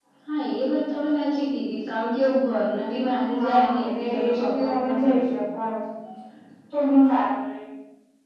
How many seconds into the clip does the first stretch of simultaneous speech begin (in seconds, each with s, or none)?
3.3 s